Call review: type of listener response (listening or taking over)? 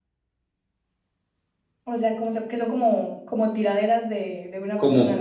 taking over